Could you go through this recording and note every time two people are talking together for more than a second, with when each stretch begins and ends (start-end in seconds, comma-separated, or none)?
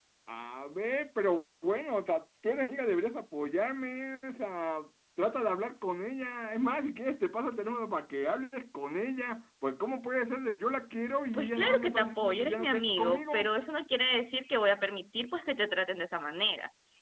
11.3-13.5